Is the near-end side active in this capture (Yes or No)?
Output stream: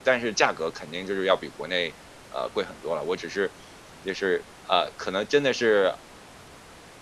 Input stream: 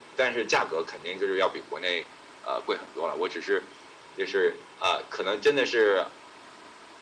No